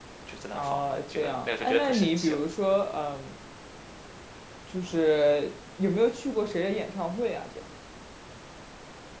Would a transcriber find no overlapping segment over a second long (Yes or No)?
No